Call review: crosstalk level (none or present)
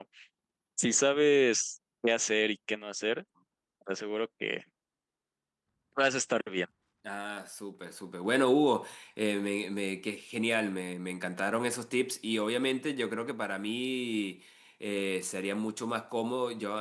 none